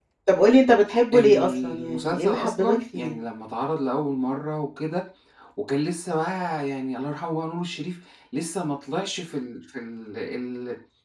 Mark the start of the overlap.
1.1 s

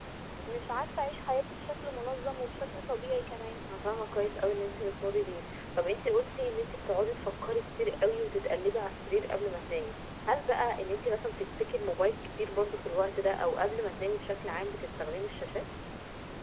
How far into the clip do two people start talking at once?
none

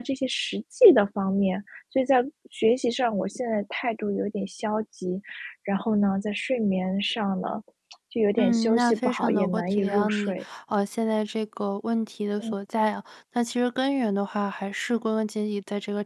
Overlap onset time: 8.4 s

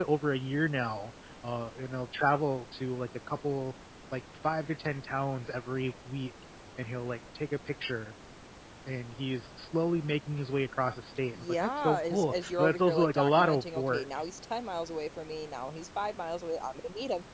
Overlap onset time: 11.3 s

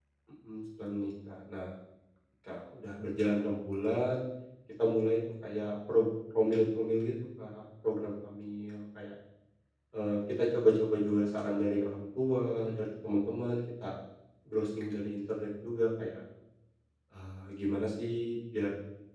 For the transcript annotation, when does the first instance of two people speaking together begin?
none

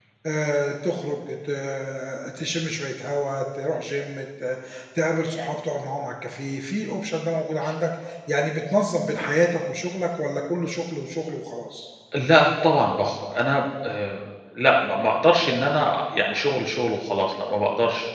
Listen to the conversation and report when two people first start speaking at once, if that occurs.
none

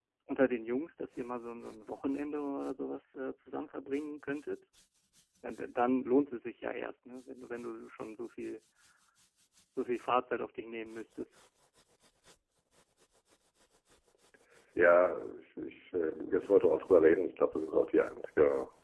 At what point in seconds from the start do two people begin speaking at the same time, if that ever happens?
none

